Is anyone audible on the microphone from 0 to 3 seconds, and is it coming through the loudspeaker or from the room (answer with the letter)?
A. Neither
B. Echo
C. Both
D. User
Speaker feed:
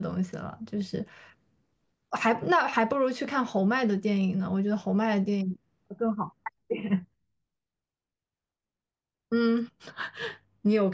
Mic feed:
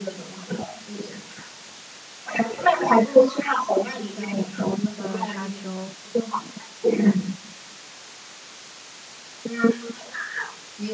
B